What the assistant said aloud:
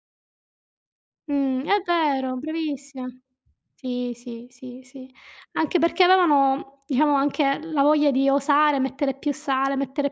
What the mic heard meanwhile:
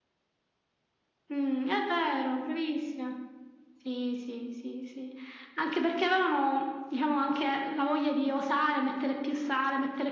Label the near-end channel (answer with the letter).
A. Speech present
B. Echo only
B